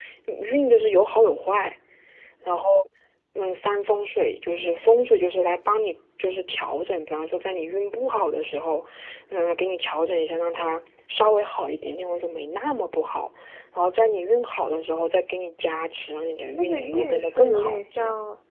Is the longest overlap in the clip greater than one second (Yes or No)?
Yes